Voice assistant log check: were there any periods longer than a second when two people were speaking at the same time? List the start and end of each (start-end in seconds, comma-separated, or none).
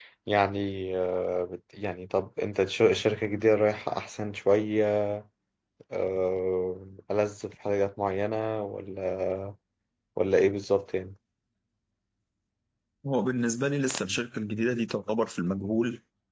none